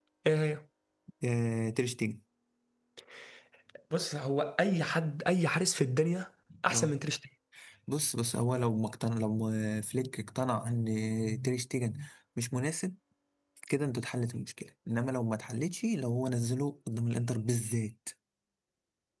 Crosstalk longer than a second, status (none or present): none